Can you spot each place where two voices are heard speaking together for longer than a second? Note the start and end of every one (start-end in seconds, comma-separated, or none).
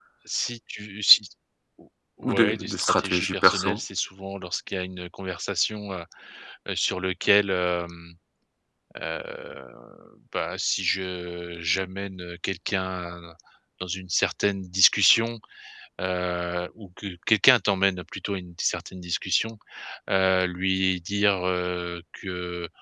2.2-3.8